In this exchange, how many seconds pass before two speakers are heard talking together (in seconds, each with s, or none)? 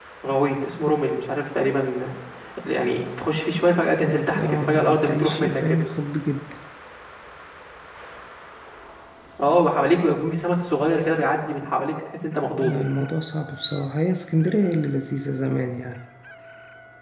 4.3 s